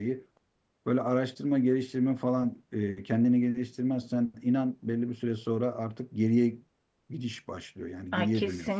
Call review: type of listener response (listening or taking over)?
taking over